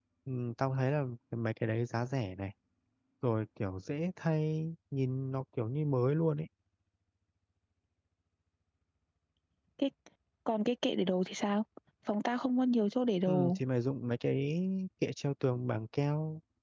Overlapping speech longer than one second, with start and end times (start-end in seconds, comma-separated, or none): none